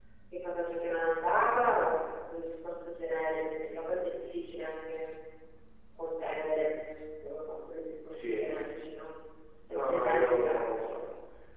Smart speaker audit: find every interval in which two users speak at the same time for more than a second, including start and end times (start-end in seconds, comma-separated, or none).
9.7-11.0